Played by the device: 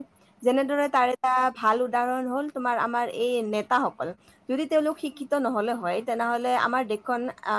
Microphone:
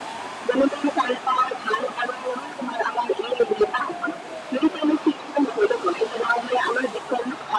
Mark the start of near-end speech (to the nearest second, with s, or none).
none